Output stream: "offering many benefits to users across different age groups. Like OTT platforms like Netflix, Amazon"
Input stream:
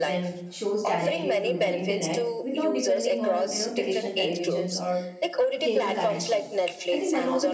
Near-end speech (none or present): present